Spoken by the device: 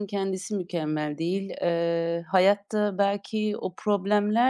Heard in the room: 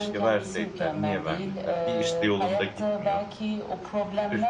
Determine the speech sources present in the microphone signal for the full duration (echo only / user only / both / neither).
both